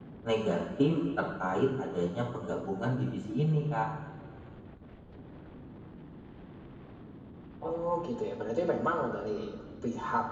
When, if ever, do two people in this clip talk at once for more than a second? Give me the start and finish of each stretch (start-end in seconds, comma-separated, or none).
none